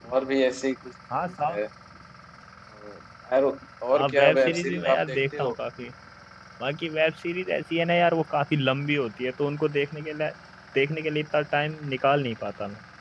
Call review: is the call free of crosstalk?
No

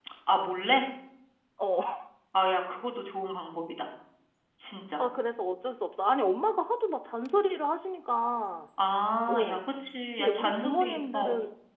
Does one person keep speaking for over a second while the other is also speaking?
Yes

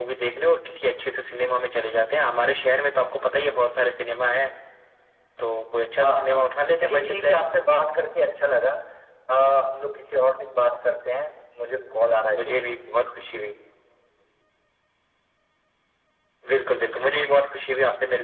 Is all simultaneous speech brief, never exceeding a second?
No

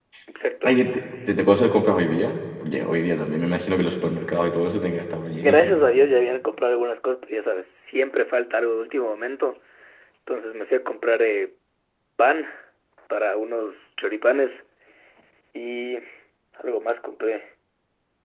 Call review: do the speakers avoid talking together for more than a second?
Yes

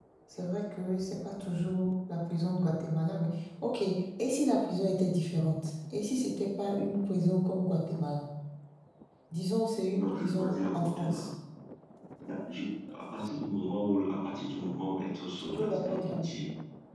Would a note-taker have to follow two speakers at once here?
Yes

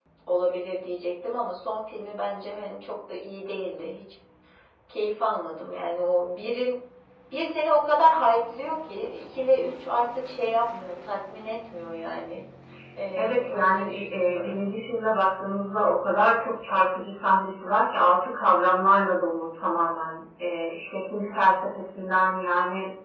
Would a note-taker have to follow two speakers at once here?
Yes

